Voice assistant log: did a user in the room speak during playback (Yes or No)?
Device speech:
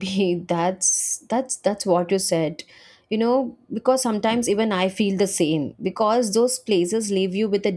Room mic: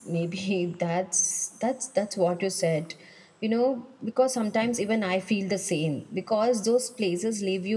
No